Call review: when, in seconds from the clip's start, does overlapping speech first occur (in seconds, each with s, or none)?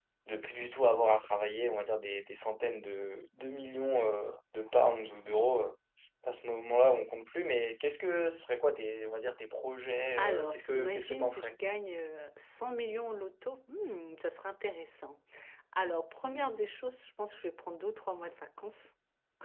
10.2 s